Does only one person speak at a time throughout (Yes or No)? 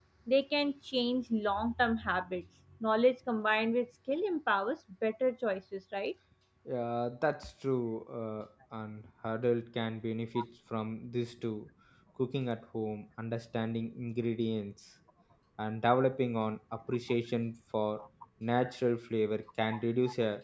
Yes